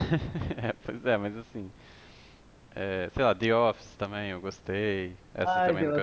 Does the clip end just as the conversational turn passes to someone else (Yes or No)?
Yes